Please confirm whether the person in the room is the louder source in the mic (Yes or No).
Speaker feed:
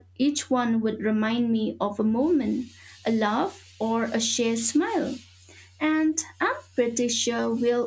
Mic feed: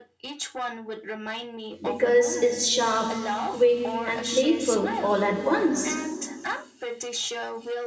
Yes